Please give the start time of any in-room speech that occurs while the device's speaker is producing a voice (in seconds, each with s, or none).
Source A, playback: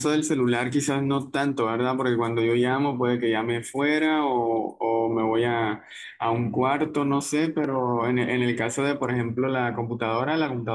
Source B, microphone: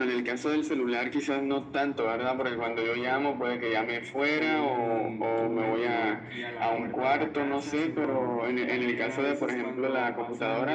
4.4 s